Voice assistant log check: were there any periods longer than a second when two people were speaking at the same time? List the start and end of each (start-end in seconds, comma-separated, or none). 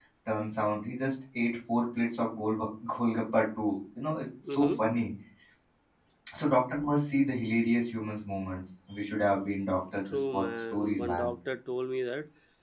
10.1-11.3